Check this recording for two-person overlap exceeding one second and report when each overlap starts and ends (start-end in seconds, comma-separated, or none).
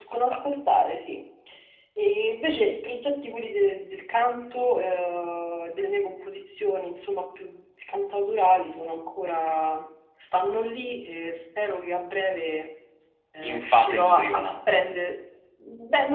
13.4-15.0